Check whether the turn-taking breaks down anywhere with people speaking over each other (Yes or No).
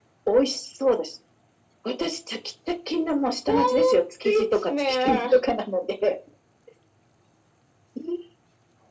Yes